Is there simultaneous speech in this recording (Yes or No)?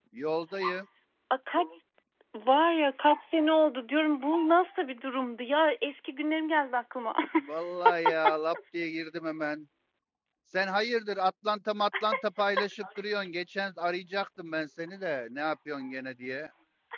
No